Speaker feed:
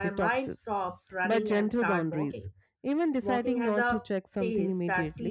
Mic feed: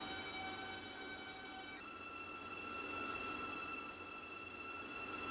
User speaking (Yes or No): No